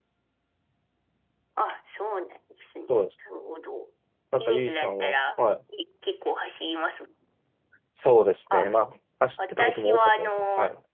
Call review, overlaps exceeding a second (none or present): present